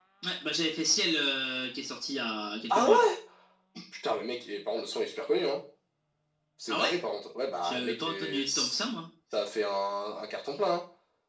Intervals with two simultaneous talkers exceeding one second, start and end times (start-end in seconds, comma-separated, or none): 7.6-8.9